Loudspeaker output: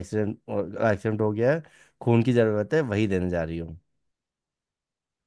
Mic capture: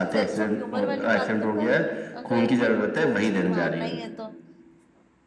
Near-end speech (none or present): present